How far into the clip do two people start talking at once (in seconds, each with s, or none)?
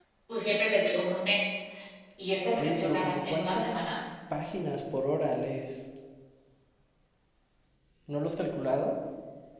2.6 s